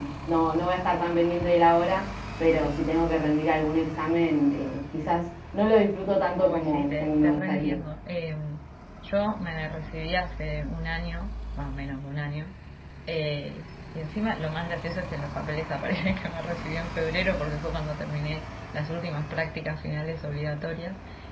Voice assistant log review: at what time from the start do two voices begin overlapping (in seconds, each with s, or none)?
6.3 s